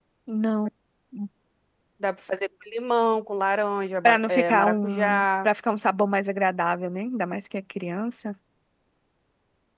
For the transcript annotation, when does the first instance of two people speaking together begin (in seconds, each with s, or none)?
4.0 s